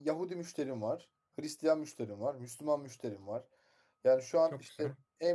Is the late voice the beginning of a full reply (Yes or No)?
No